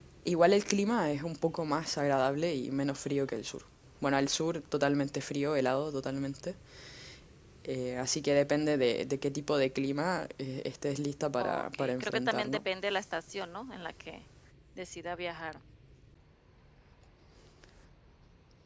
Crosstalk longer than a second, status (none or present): present